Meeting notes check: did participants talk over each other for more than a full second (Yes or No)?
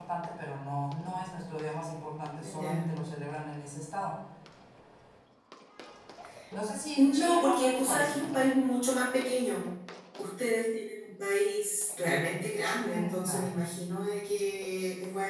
Yes